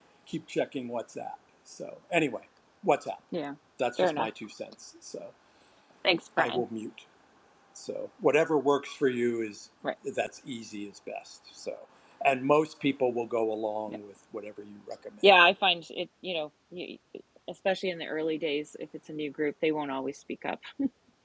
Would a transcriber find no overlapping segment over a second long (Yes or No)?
Yes